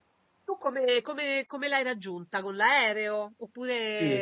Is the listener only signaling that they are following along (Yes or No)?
No